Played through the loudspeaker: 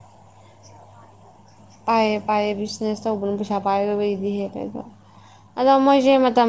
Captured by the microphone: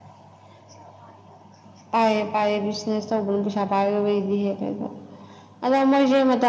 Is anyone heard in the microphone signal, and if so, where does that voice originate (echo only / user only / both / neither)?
echo only